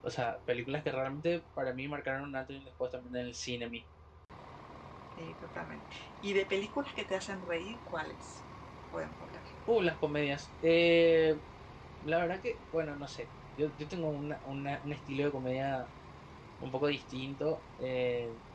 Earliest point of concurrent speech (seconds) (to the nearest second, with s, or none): none